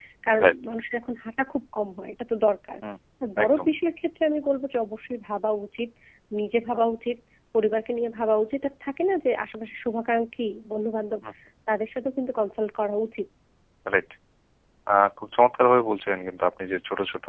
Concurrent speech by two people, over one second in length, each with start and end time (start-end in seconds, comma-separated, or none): none